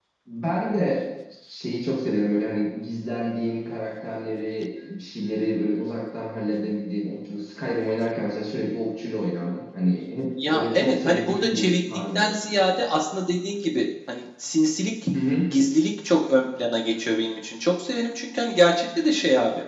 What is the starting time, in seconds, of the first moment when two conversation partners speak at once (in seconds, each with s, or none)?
10.4 s